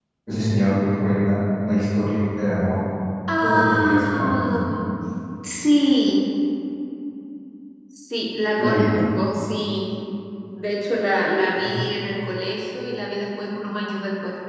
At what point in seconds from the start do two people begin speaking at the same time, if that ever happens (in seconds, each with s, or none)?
3.4 s